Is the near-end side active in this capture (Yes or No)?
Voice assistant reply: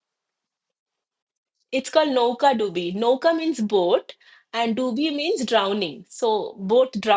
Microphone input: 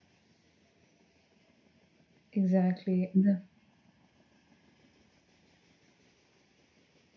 Yes